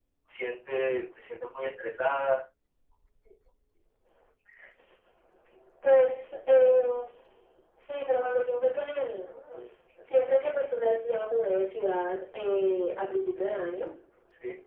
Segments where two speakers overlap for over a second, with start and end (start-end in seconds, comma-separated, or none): none